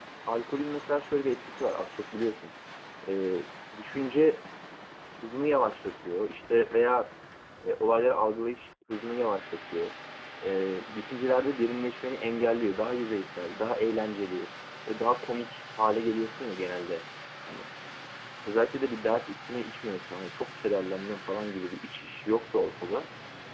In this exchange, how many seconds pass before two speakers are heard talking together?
none

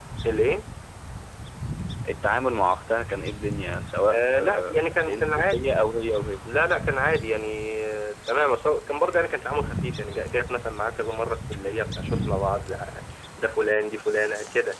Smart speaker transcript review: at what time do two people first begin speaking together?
4.1 s

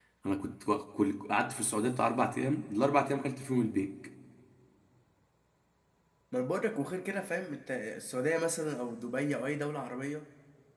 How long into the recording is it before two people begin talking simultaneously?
none

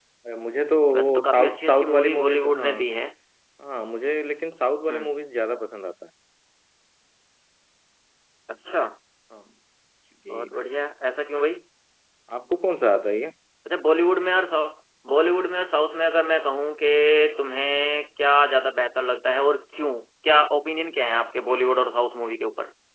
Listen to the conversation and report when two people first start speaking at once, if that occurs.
0.9 s

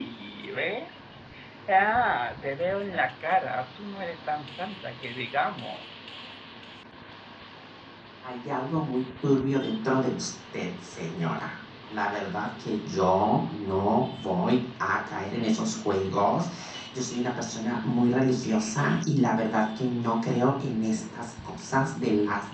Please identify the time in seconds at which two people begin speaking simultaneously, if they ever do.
none

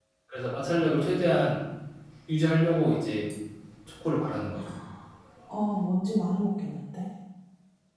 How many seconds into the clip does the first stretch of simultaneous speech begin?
none

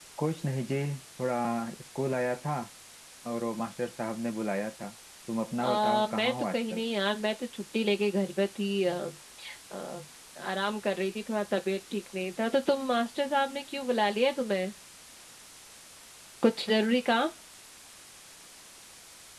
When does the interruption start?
5.6 s

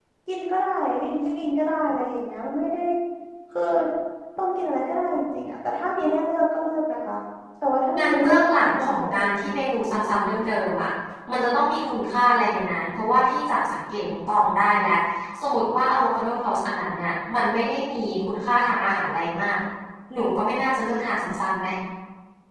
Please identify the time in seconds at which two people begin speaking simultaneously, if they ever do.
8.0 s

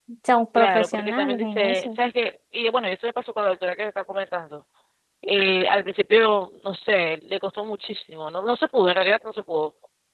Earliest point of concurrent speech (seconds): 0.6 s

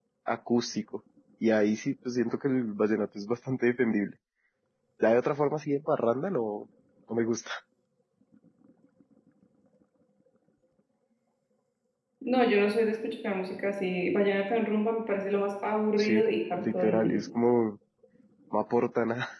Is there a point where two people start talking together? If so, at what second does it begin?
16.0 s

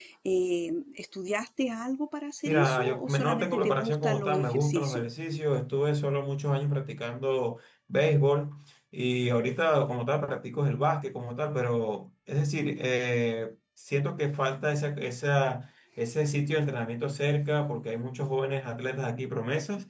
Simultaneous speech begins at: 2.5 s

